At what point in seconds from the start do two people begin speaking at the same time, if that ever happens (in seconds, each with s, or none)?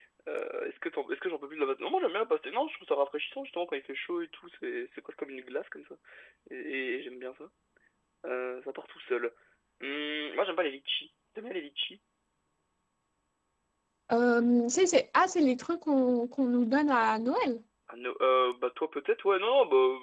none